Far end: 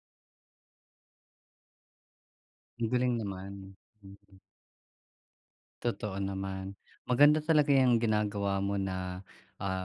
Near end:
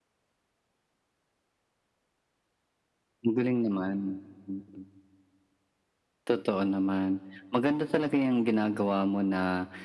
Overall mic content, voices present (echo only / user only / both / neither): echo only